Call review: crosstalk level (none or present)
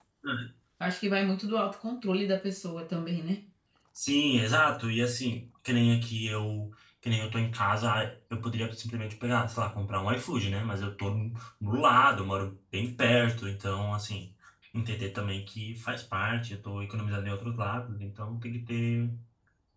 none